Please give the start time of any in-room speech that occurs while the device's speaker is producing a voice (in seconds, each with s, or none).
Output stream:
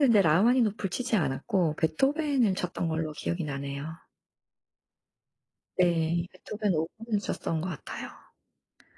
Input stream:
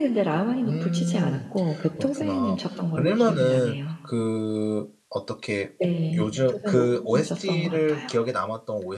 0.6 s